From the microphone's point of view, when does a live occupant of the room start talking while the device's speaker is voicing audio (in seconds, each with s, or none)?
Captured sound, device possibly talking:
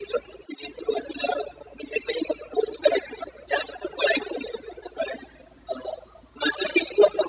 none